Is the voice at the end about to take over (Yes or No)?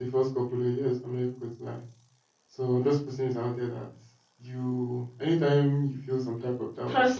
Yes